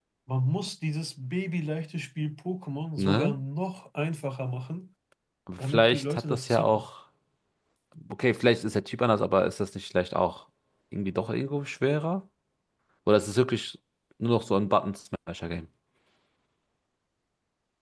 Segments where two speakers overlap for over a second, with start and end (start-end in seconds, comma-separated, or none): 5.6-6.9